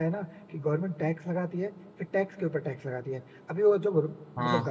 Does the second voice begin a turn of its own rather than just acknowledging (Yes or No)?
No